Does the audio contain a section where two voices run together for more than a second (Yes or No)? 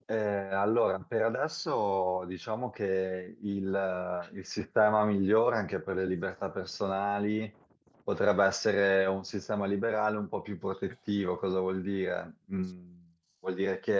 No